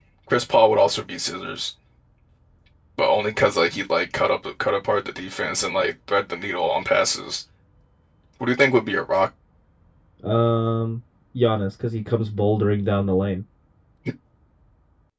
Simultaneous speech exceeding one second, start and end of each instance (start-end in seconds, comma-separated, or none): none